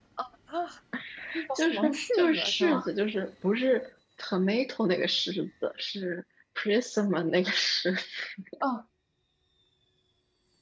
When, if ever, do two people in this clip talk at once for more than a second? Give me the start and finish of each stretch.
1.6-2.9

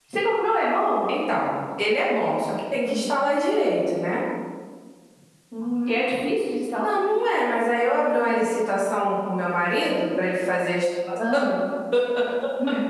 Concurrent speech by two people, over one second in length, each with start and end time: none

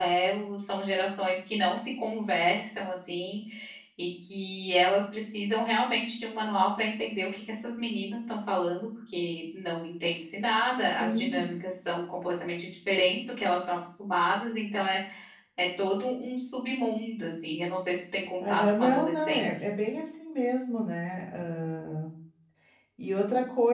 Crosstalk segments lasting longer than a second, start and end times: 18.4-19.7

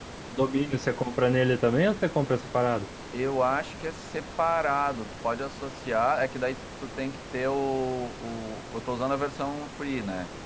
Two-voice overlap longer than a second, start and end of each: none

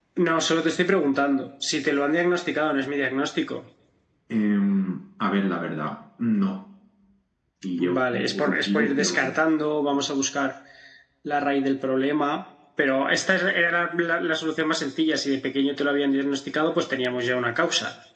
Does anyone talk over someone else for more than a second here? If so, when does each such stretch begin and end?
8.0-9.3

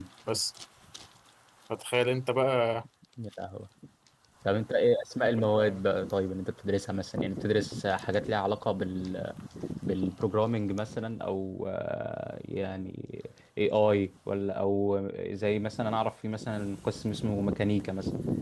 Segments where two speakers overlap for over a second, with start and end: none

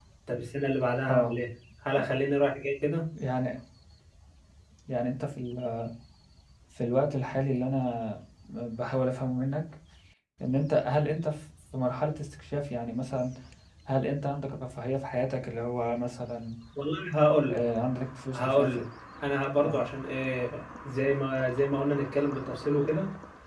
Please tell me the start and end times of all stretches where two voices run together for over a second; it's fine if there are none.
none

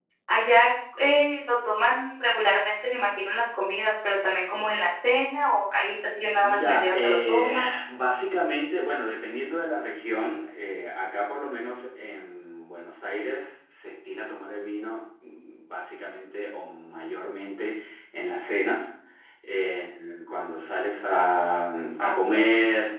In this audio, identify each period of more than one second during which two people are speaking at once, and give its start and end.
6.4-7.7

